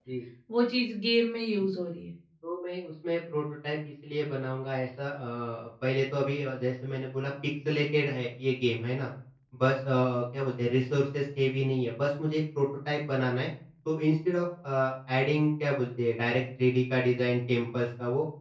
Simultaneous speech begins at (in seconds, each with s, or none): none